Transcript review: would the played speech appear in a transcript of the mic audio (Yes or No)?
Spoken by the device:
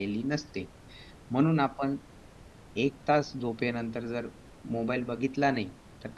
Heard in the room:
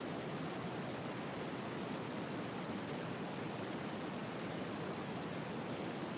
No